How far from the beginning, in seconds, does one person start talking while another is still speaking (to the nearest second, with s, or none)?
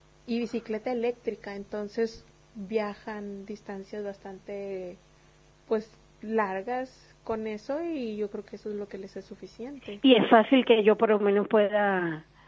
none